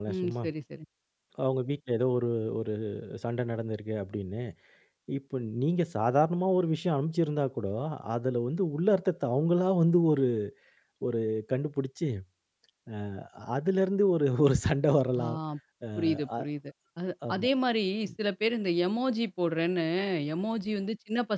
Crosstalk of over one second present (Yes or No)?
No